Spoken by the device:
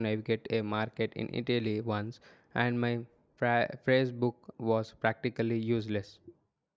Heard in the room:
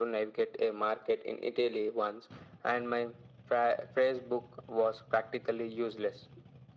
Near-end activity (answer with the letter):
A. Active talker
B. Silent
B